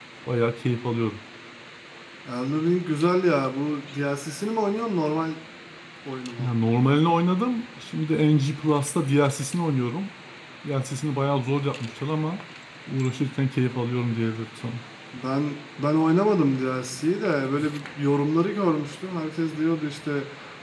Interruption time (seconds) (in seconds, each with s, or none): none